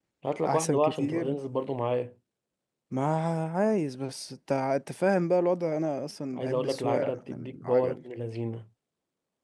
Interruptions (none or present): present